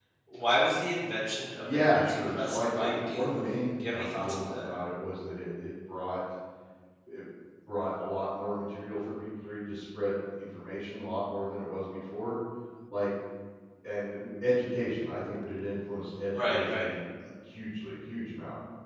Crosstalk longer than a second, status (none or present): present